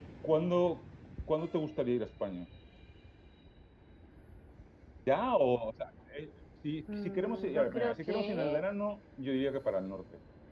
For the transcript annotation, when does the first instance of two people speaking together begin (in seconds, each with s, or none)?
6.9 s